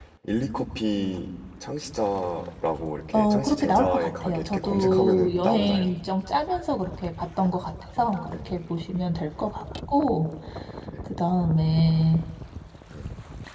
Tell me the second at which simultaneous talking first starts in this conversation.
3.1 s

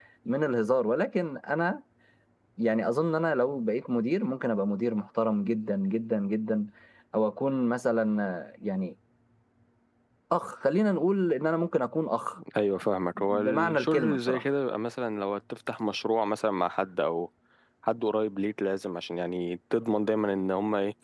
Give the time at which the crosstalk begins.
13.2 s

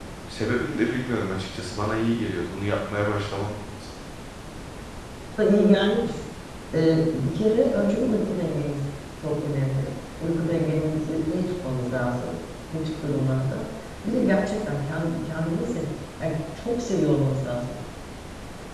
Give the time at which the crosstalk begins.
none

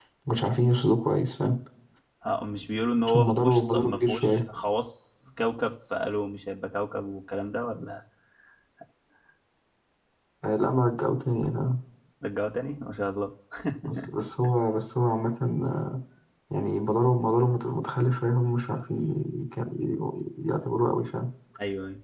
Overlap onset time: 3.0 s

